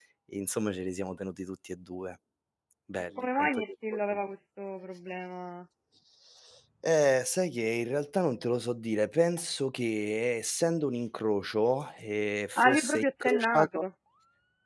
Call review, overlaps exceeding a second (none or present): present